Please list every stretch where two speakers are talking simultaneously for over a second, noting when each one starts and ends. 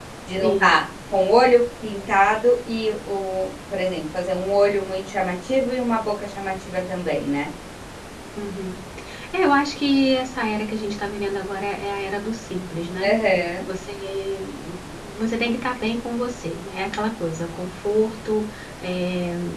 none

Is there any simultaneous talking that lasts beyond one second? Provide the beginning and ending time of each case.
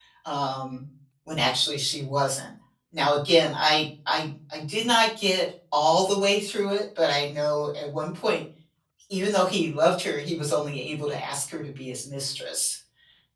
none

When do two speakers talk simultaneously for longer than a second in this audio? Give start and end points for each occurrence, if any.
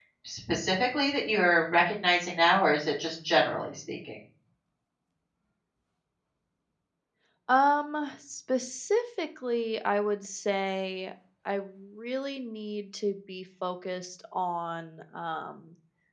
none

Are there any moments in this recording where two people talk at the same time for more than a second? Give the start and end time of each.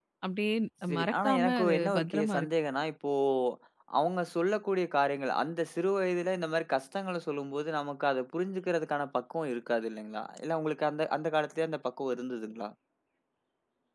1.0-2.5

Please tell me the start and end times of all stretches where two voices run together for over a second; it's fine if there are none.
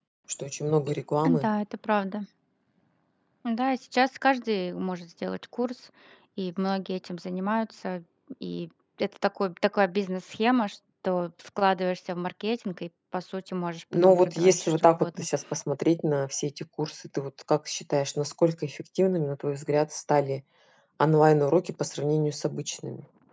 14.0-15.3

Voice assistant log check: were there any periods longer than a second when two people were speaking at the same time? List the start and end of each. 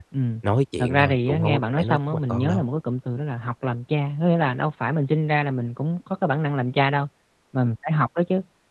0.8-2.6

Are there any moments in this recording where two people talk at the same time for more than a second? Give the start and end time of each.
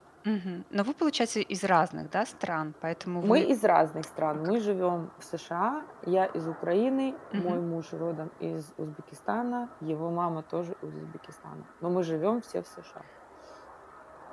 none

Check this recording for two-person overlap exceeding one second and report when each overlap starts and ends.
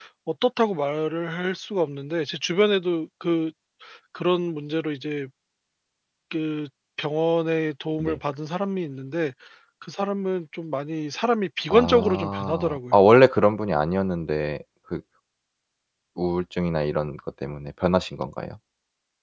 11.7-13.0

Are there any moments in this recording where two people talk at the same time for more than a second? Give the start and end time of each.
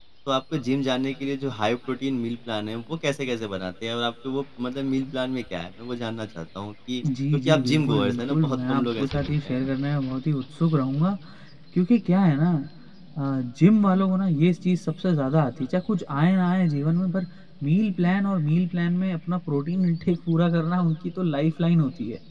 7.3-9.6

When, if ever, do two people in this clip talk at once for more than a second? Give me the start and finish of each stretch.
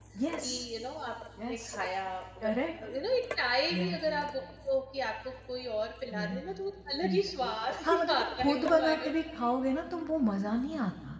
7.8-9.1

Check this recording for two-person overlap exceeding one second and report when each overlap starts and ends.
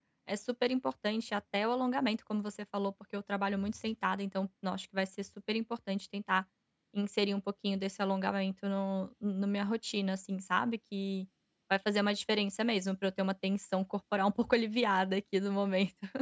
none

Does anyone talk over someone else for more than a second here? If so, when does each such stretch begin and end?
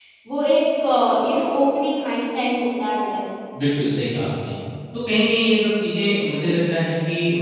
none

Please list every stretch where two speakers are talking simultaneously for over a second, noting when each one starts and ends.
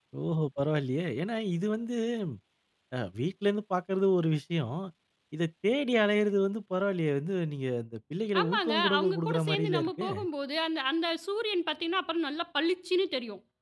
8.4-10.1

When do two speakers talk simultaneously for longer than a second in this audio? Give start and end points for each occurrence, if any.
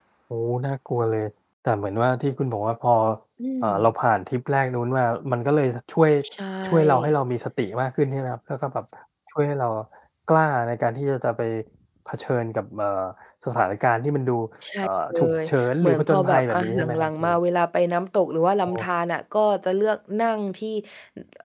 14.8-17.2

